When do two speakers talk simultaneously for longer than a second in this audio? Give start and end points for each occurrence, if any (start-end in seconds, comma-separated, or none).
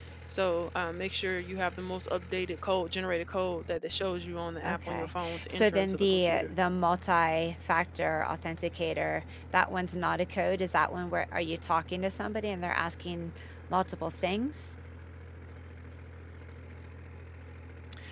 4.7-6.5